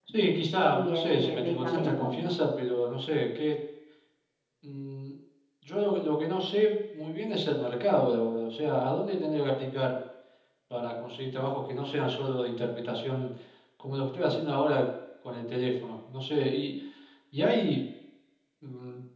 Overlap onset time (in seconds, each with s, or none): 0.7 s